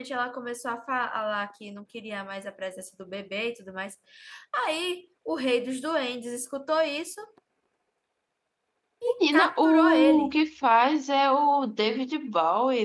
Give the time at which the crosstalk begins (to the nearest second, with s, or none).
9 s